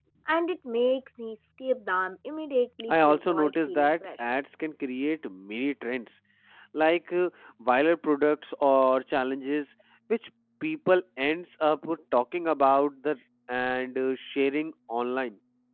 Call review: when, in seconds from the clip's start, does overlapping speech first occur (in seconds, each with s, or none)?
2.9 s